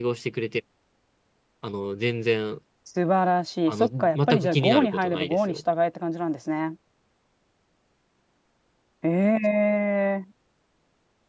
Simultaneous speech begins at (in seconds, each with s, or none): 3.7 s